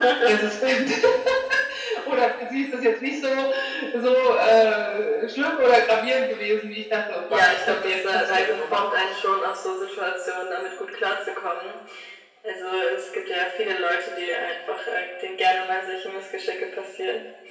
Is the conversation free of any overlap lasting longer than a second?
No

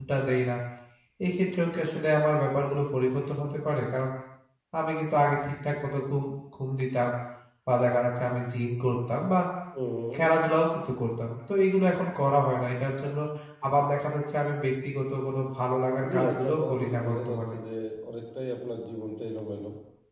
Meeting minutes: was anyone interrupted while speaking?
Yes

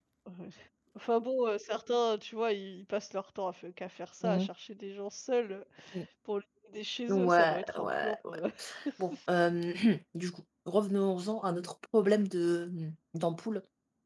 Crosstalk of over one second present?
Yes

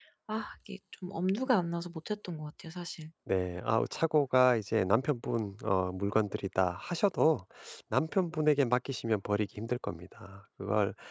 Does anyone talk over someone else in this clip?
No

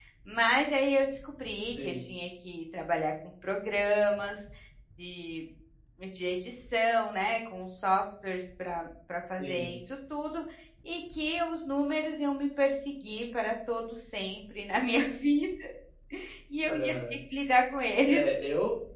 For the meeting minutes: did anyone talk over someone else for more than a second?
No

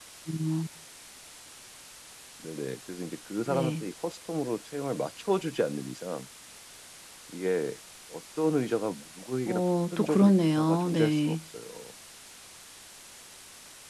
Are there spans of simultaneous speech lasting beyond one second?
Yes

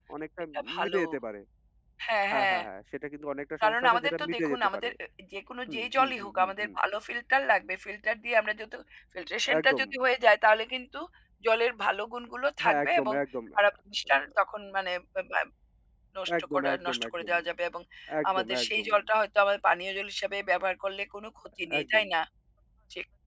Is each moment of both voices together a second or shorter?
No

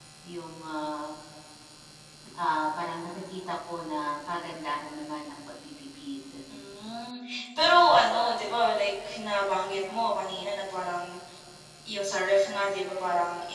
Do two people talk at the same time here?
No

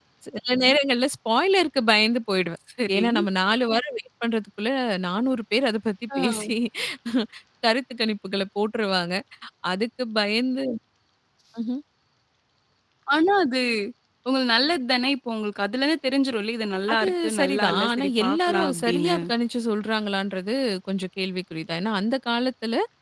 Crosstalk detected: Yes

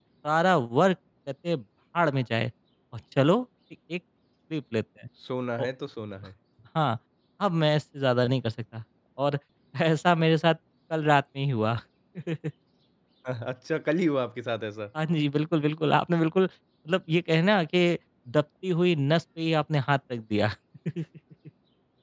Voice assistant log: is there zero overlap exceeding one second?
Yes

